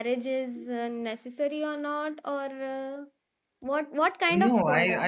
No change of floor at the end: No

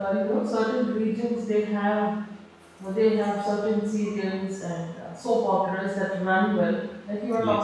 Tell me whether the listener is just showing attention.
Yes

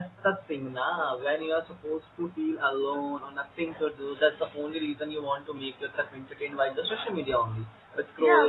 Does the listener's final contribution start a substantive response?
Yes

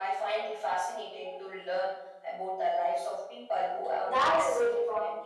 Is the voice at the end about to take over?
Yes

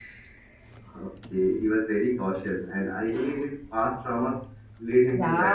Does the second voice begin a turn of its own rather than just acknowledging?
Yes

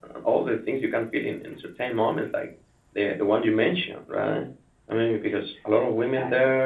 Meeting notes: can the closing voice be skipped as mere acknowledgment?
Yes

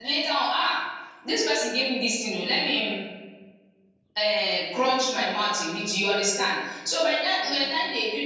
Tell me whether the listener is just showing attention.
Yes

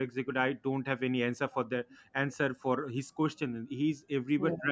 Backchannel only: Yes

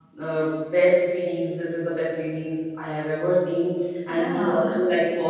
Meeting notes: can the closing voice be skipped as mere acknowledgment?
Yes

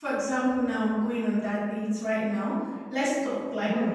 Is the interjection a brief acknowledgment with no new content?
No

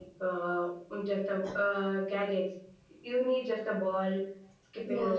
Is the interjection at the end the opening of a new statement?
No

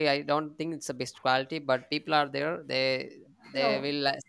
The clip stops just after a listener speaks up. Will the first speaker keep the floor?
Yes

